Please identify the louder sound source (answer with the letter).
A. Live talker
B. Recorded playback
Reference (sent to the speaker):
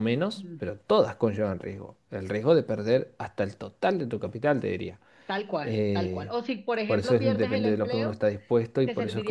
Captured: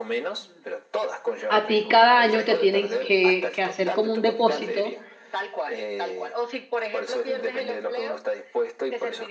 A